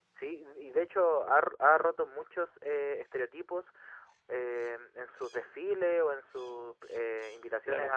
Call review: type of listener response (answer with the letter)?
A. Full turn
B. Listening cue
B